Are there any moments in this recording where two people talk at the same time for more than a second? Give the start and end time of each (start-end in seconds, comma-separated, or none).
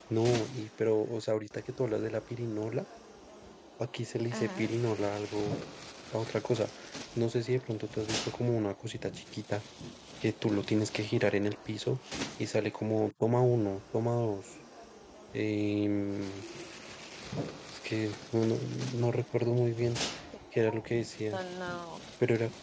none